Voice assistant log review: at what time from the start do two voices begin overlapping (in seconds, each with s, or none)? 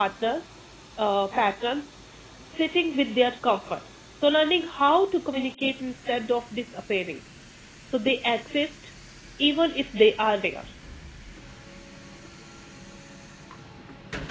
none